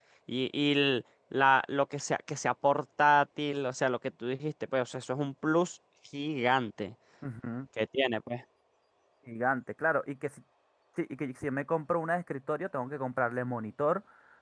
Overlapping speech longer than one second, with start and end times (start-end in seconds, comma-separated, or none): none